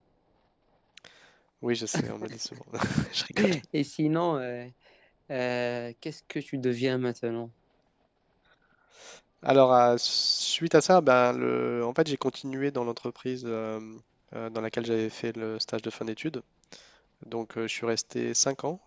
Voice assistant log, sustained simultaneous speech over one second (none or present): none